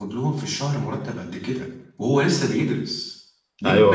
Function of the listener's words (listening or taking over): taking over